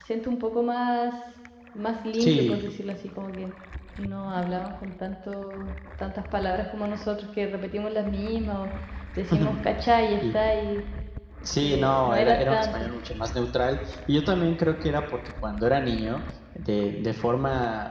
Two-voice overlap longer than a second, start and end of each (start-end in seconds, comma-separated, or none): 11.6-12.8